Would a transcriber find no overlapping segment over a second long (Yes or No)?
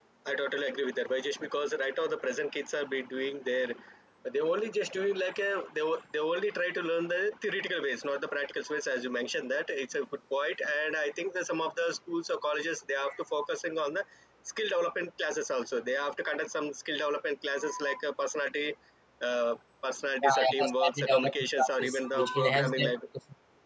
No